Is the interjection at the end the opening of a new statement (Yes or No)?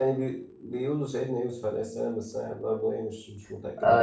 Yes